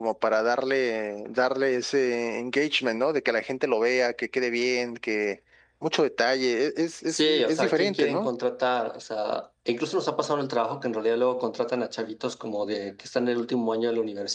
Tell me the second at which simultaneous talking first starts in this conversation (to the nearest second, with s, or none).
7 s